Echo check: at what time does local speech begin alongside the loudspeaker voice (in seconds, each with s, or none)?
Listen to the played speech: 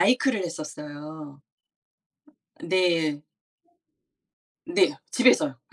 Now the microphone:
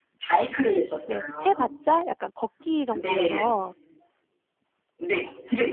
1.0 s